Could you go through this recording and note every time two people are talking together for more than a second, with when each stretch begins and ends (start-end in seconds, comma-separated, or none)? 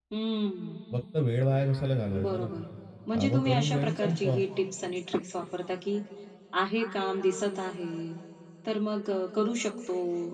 3.1-4.4